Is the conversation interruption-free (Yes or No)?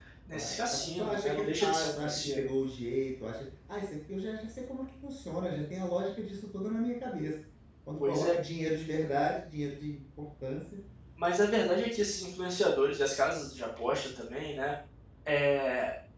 No